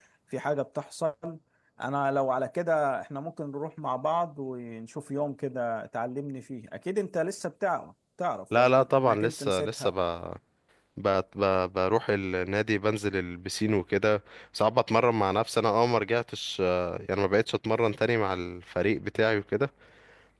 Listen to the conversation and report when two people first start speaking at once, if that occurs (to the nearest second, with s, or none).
9 s